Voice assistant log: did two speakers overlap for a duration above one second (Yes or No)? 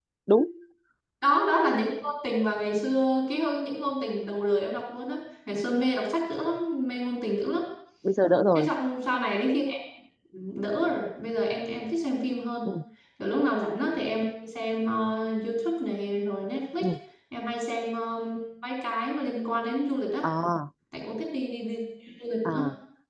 No